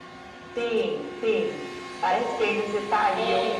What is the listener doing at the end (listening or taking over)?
taking over